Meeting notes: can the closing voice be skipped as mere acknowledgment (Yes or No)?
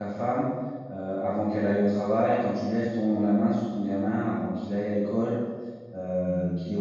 No